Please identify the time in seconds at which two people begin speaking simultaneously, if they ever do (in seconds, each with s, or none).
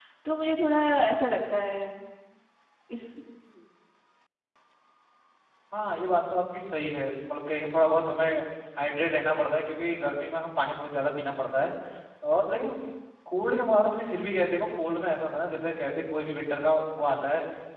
none